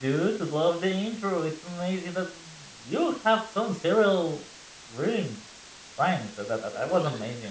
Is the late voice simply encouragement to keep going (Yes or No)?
Yes